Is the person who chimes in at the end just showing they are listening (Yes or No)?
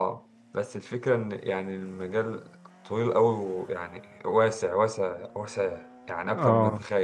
No